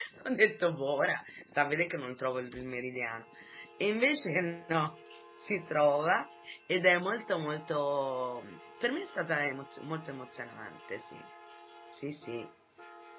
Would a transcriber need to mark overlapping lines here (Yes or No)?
No